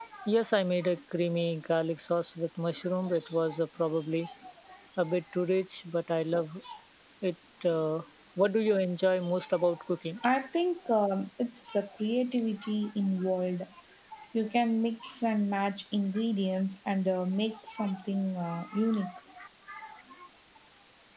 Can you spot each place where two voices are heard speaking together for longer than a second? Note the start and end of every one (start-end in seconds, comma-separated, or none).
none